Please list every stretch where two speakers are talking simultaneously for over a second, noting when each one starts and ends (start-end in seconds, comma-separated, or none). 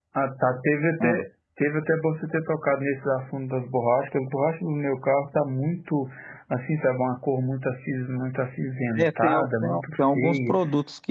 9.0-10.5